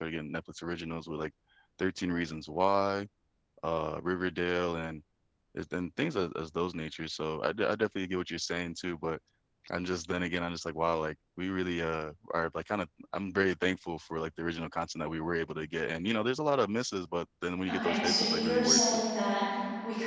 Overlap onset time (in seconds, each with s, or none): 17.7 s